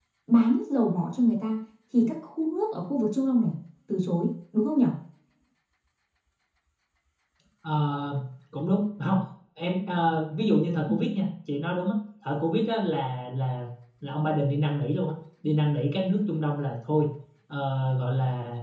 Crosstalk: none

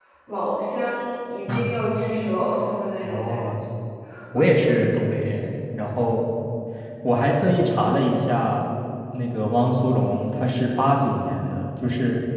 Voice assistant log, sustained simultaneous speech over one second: none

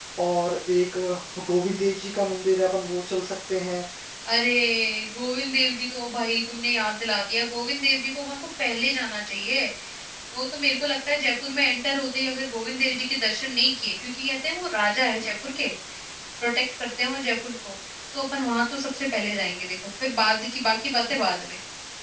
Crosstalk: none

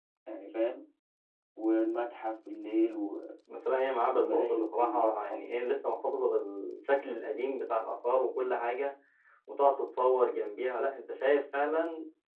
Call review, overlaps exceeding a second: present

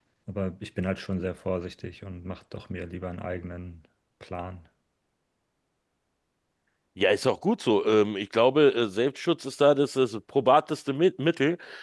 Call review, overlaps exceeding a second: none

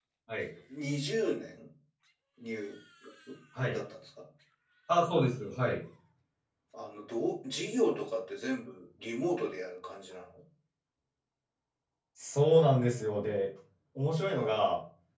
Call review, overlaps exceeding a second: none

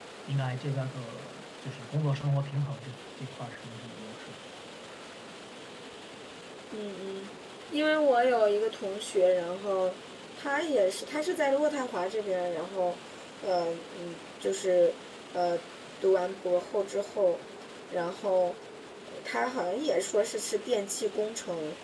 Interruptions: none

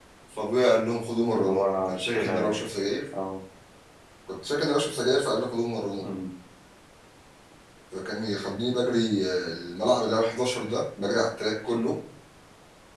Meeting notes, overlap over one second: present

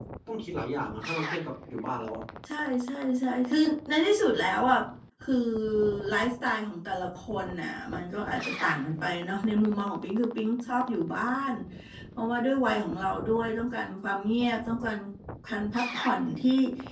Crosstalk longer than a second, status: none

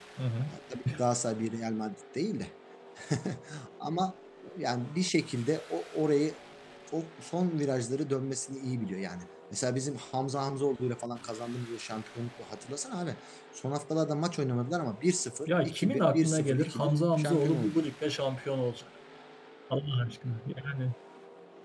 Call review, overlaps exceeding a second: present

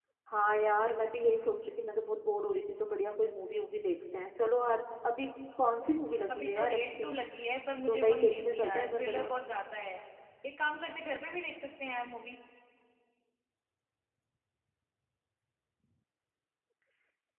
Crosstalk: present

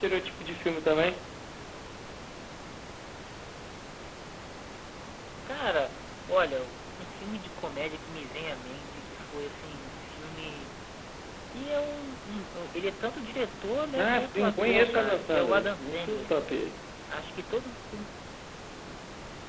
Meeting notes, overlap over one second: present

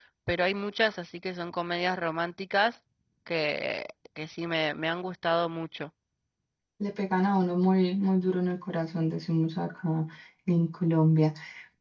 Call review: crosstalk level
none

